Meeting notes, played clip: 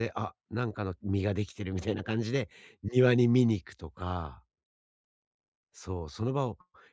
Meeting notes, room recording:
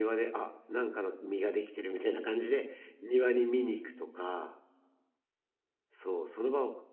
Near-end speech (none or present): none